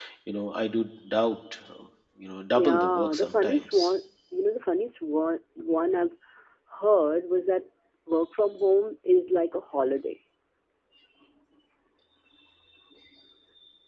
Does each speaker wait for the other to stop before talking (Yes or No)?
No